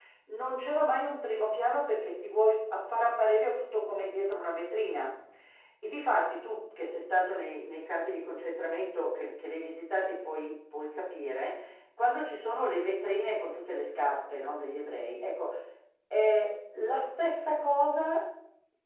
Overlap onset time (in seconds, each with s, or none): none